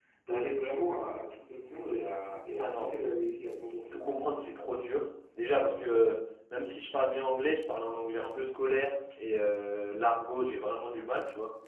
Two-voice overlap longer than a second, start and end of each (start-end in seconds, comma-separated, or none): none